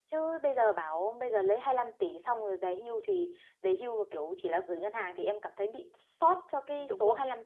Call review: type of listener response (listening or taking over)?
taking over